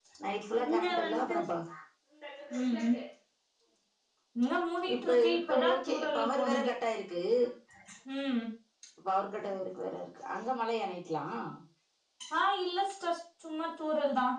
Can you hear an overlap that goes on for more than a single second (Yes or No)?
Yes